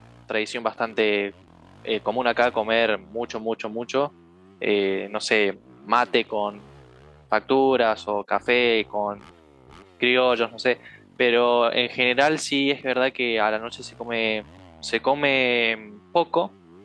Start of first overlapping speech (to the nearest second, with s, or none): none